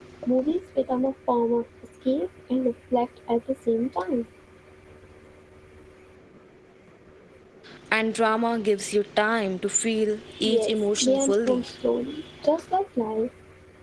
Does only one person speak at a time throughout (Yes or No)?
No